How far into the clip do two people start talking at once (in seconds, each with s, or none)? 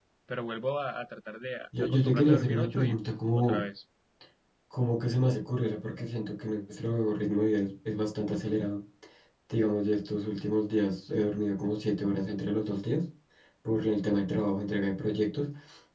1.7 s